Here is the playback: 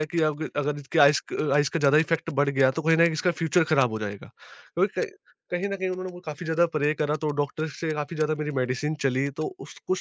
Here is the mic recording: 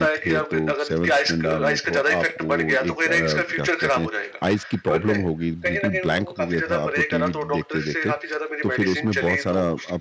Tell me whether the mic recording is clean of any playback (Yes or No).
No